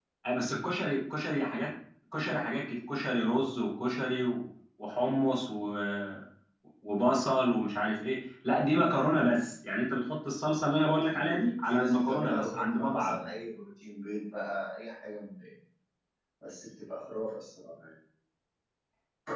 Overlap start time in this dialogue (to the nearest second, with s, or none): 11 s